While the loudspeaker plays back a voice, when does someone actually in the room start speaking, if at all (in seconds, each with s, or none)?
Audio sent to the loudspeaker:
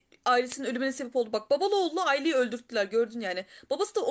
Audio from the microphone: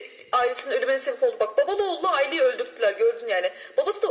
none